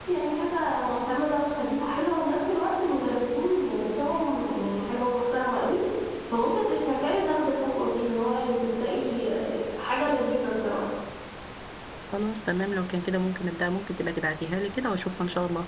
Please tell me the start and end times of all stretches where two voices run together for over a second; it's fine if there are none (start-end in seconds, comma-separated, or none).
none